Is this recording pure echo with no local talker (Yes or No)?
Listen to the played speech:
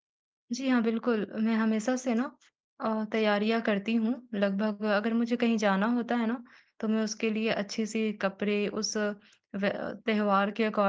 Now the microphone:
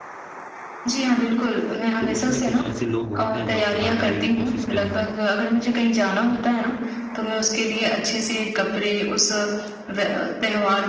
No